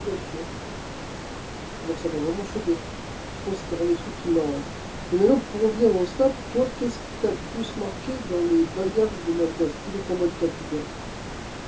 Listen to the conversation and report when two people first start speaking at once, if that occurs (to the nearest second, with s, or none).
none